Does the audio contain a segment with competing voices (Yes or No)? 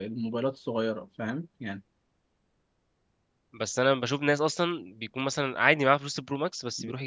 No